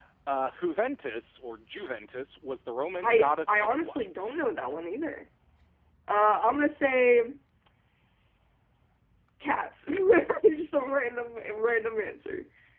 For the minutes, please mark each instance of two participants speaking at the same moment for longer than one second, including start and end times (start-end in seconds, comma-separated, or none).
3.0-4.3